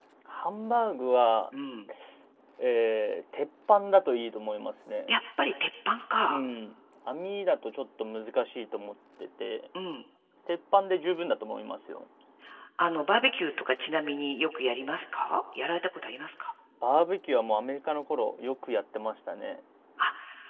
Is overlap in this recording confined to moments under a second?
Yes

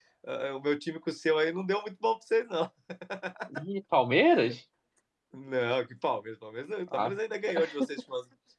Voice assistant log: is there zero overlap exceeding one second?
Yes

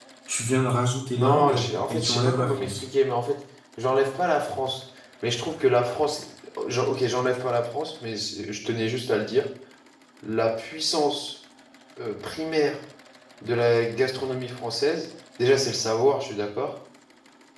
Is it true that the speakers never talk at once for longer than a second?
No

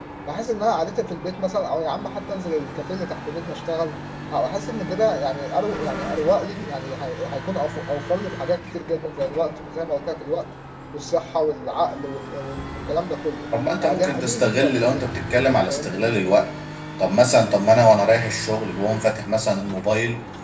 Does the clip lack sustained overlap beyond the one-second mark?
No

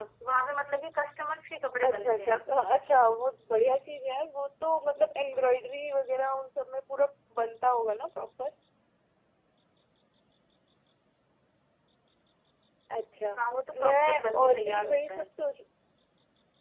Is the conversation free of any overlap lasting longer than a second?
No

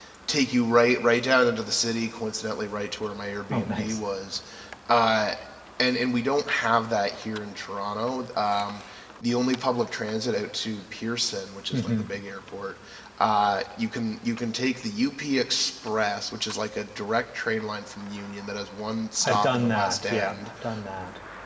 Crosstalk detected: Yes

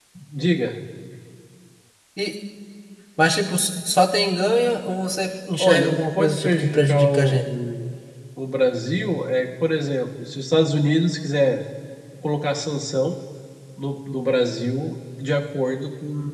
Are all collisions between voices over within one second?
No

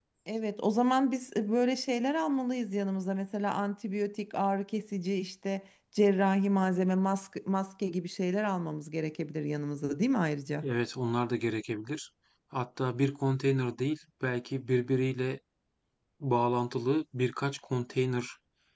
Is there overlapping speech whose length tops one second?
No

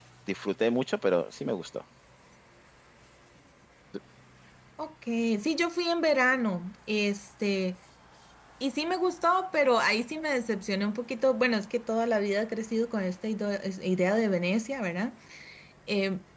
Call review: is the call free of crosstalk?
Yes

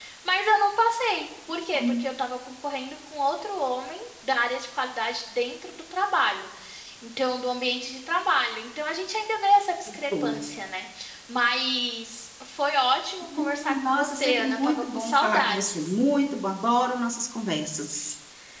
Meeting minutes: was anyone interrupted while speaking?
Yes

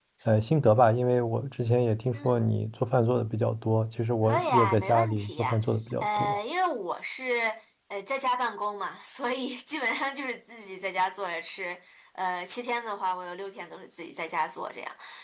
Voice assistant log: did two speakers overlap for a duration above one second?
Yes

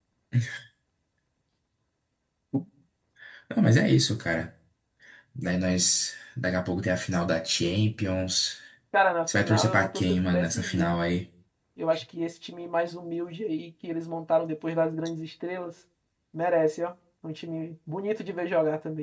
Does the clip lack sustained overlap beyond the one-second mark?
No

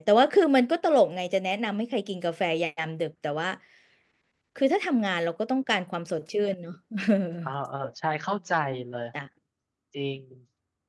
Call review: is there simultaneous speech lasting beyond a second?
No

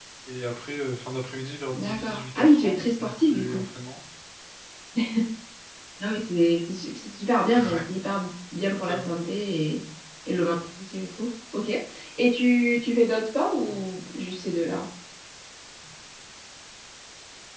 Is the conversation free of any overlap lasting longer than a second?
No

